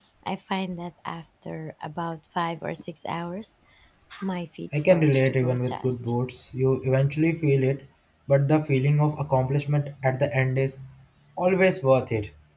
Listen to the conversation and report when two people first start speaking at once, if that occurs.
4.7 s

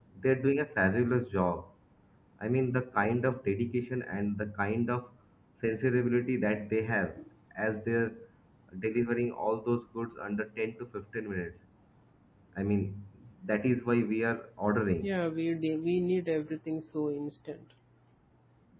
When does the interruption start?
none

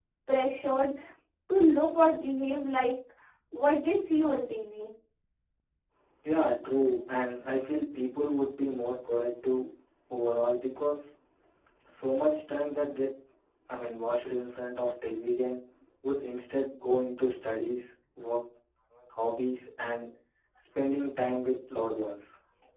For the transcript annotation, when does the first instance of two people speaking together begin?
none

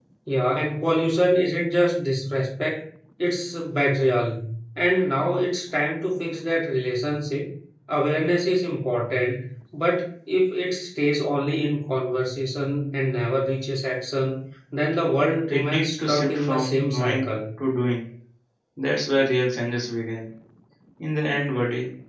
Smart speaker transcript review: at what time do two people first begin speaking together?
15.5 s

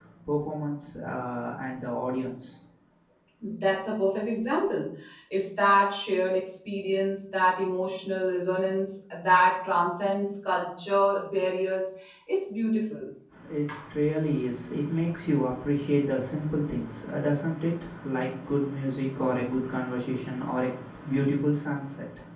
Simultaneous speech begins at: none

